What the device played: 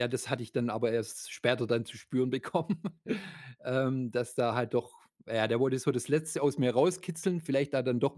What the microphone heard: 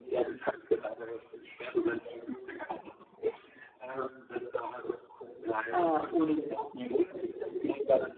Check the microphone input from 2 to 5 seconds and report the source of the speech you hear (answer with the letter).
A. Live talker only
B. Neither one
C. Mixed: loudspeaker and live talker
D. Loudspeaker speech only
D